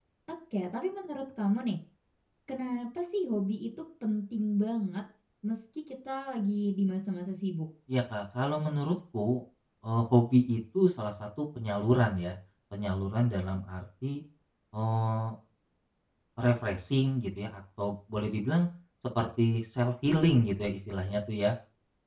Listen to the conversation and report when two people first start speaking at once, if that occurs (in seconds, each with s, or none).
none